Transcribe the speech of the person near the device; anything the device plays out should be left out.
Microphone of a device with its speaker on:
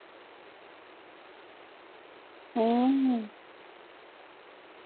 嗯，

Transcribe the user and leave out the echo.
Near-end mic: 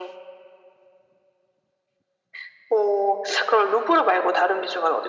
none

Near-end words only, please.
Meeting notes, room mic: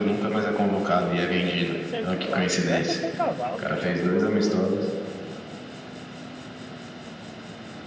tem que ser, sei lá, mano. Vai apostar em cavalo, sei lá, qualquer outra coisa.

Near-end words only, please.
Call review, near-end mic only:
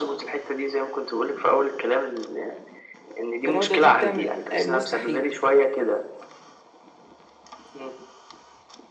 الاراده دي بتعمل المستحيل

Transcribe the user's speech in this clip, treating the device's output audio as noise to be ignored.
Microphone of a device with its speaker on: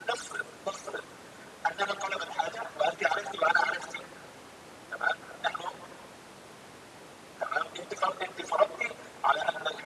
none

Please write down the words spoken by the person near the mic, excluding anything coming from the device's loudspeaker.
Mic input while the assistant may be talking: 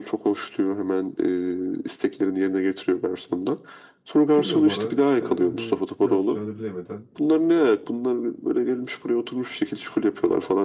Giriyor bara işte hani ne yapacağını bilemeden

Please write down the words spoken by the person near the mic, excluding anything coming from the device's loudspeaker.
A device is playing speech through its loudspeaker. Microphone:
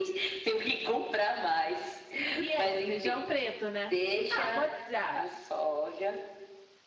E é, feijão preto, né? Ah, pode. Ah,

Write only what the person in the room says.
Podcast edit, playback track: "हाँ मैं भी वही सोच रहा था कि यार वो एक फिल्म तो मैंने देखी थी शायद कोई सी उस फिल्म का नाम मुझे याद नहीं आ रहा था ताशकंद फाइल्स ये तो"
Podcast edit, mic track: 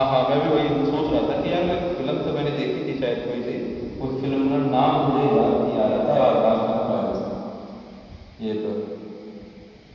none

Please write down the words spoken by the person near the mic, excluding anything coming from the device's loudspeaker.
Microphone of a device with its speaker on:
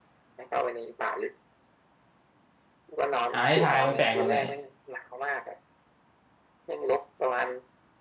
อ่าให้ทายมันแปลกแบบไหน

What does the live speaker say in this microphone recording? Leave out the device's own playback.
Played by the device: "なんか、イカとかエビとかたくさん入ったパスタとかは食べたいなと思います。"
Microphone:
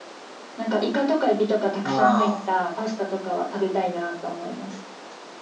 ああ、

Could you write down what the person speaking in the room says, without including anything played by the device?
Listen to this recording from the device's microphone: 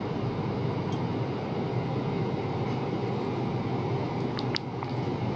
none

